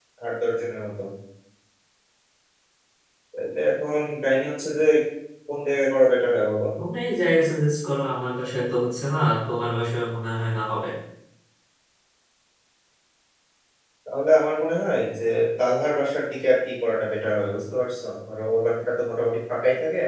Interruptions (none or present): none